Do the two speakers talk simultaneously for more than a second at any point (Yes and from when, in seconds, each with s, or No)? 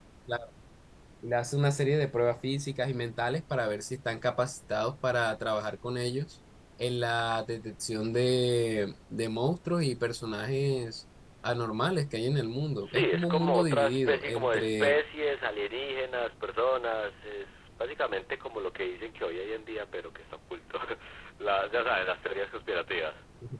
Yes, from 12.8 s